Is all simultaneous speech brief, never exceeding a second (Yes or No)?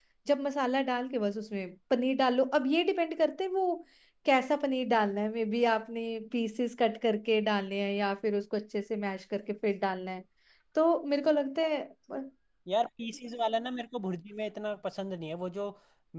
Yes